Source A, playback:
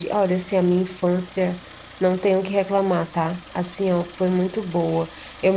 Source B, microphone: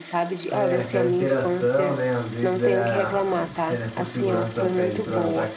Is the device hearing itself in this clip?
Yes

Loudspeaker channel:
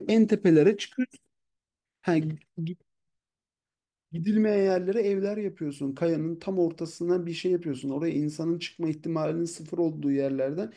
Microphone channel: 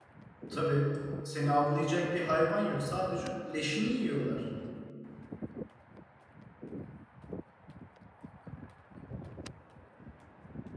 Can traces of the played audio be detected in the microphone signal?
No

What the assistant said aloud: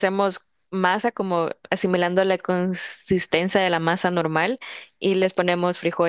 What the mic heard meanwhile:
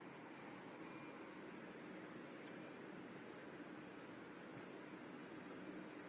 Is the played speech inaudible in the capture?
Yes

